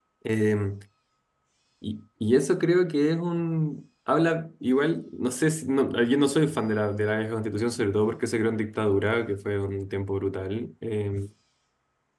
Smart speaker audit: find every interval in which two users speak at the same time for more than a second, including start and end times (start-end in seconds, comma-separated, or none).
none